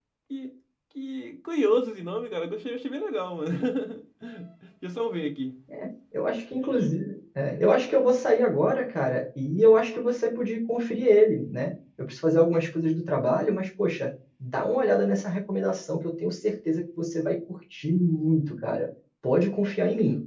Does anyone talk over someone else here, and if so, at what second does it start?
none

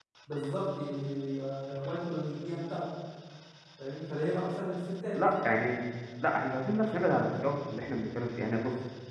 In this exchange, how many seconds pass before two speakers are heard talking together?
none

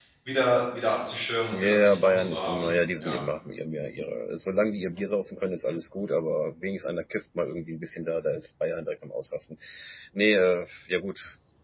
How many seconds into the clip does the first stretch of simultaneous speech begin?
1.5 s

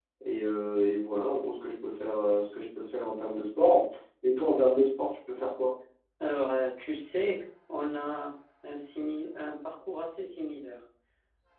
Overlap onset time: none

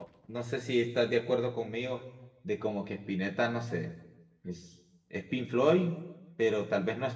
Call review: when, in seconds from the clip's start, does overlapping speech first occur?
none

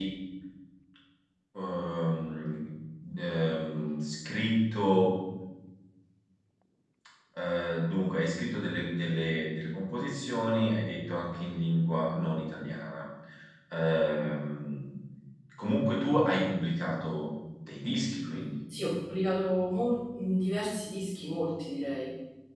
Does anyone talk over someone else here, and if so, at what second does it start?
none

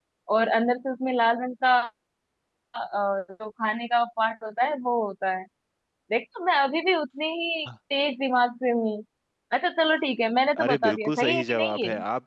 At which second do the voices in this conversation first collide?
10.5 s

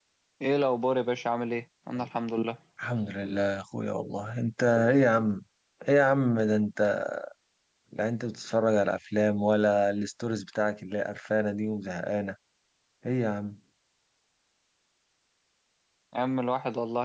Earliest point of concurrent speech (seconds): none

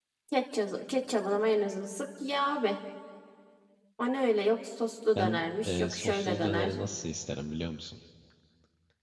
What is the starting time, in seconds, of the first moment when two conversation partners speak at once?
5.2 s

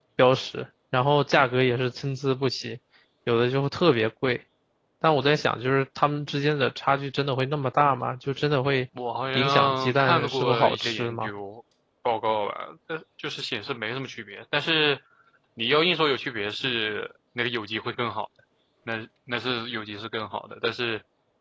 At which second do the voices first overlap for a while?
9.3 s

